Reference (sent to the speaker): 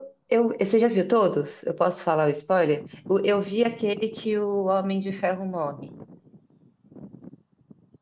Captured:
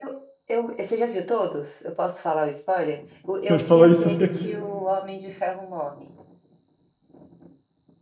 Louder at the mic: user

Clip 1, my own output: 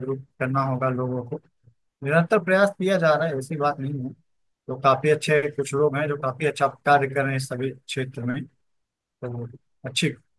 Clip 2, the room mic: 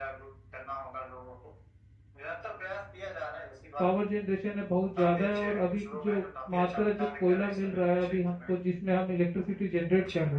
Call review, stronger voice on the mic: user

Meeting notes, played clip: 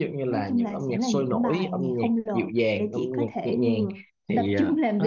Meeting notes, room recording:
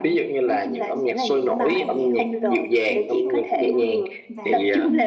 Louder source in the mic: echo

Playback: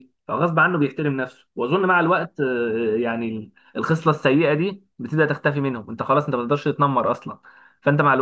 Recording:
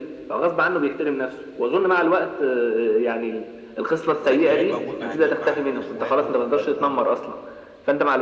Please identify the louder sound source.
echo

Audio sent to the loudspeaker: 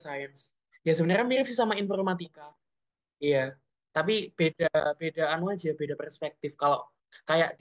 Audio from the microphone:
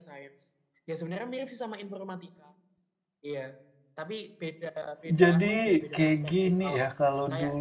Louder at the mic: user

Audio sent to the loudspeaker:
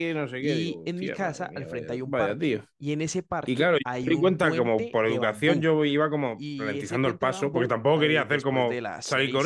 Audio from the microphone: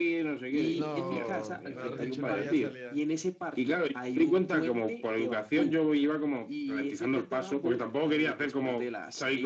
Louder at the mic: echo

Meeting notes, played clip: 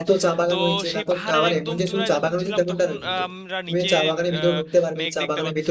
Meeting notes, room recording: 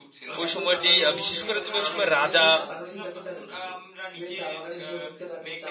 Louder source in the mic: user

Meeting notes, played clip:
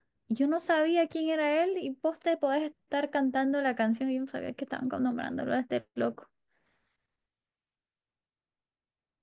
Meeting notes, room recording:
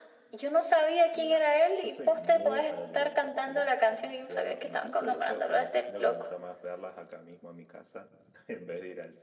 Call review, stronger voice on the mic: echo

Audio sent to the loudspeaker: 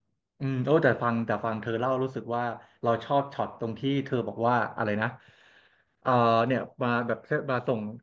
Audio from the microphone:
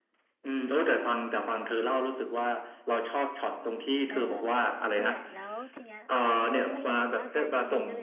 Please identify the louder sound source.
echo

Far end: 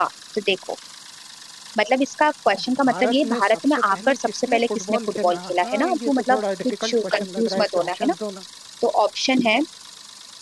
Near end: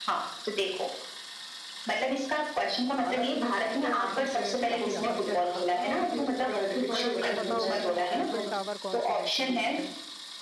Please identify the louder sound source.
echo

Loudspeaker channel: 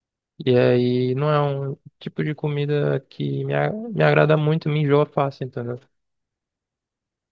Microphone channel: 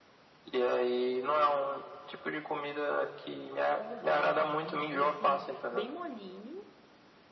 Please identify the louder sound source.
echo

